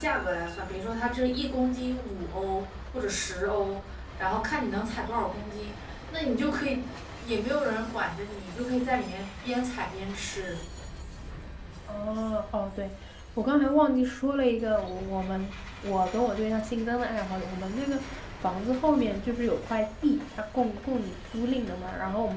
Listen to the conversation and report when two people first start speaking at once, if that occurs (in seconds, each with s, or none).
none